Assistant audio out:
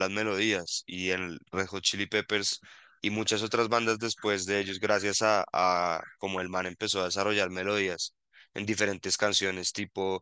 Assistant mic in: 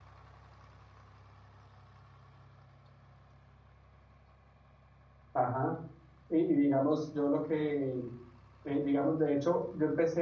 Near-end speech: present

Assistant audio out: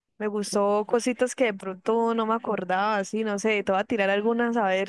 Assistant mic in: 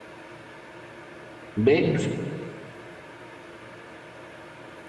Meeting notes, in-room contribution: present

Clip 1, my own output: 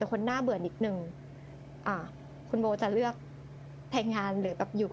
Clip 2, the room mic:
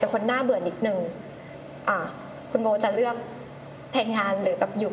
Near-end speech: none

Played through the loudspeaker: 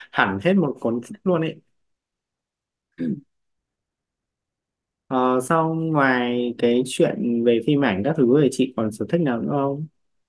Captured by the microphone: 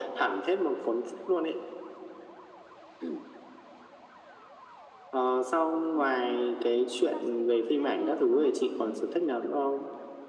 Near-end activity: present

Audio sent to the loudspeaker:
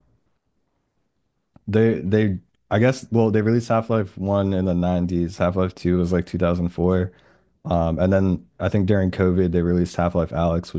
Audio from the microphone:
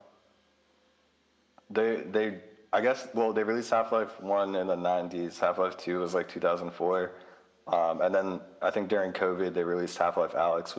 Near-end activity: none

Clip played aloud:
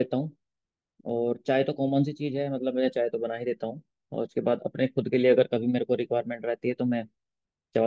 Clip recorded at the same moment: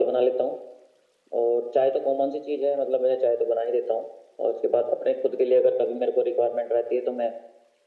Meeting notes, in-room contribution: none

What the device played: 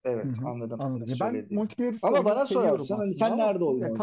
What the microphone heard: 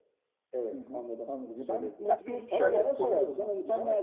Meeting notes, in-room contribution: present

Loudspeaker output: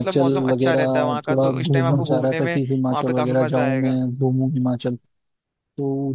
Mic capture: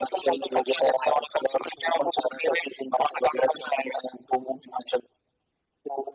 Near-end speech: none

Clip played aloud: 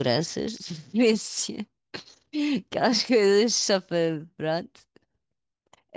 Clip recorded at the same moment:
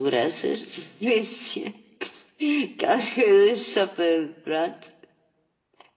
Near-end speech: none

